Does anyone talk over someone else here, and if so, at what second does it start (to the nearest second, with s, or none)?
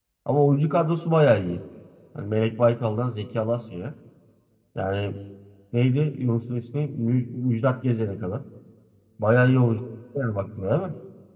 none